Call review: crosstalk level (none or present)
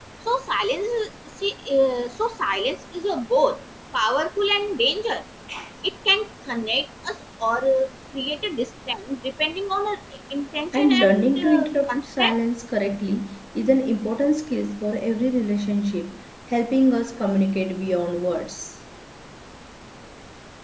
present